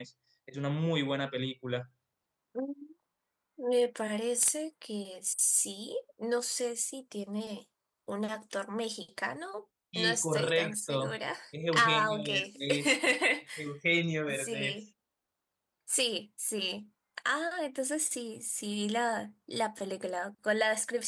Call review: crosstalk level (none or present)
present